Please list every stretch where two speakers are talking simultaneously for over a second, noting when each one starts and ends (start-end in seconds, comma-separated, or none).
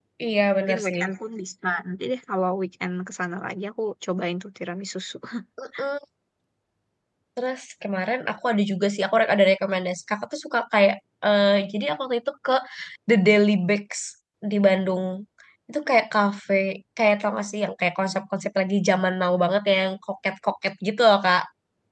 none